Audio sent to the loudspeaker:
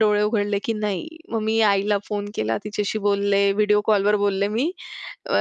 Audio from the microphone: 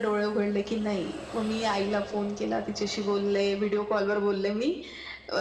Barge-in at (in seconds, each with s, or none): none